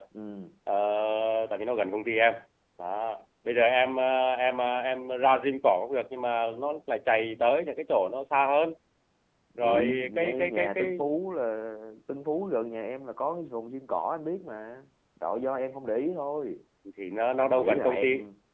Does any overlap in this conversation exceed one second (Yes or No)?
Yes